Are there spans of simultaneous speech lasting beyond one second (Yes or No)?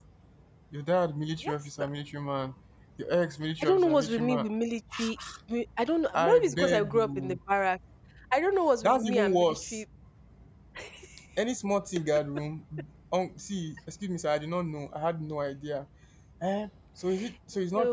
Yes